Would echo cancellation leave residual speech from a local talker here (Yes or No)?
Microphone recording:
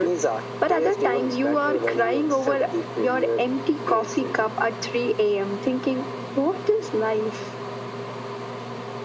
No